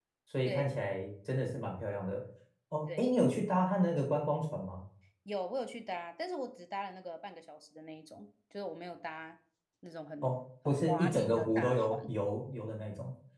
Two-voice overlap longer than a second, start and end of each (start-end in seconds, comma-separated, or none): 10.7-12.0